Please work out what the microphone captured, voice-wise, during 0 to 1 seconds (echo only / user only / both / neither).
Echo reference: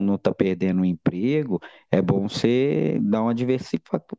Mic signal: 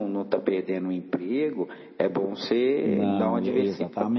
echo only